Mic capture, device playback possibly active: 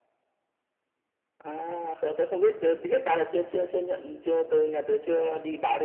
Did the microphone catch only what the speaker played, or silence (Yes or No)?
Yes